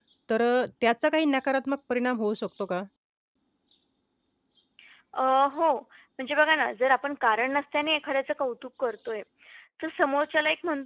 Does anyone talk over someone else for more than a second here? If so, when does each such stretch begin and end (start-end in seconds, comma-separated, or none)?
none